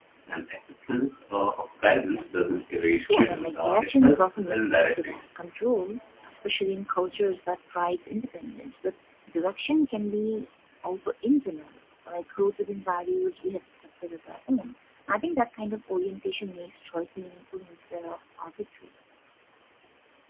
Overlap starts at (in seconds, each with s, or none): 3.1 s